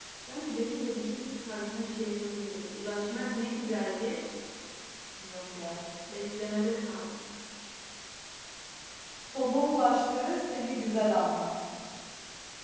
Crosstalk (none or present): none